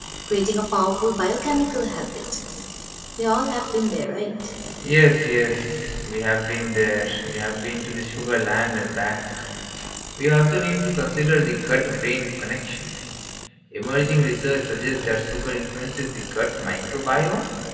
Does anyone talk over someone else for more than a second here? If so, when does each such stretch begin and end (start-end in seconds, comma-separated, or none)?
none